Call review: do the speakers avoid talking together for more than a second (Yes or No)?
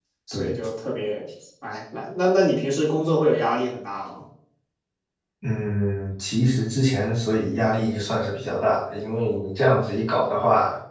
Yes